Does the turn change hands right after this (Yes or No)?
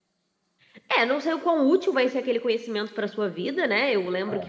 No